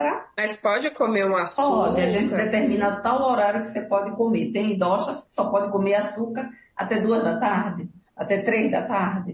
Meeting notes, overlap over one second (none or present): present